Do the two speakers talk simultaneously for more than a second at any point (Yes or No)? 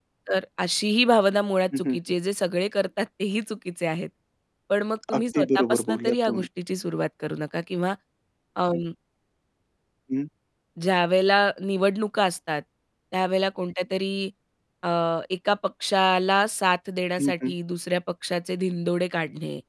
Yes